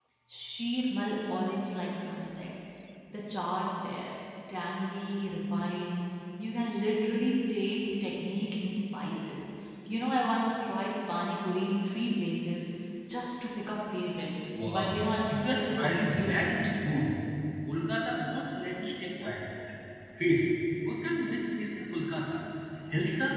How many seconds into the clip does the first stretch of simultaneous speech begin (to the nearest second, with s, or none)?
15 s